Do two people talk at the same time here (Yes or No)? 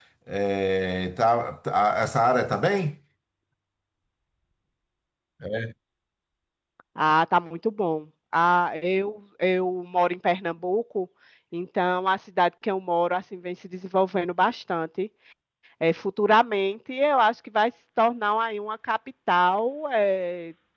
No